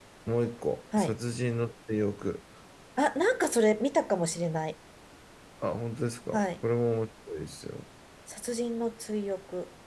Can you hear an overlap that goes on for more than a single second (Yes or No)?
No